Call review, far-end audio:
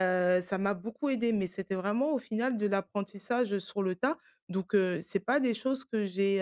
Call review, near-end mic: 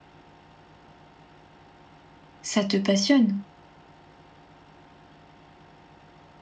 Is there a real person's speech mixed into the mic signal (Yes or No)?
Yes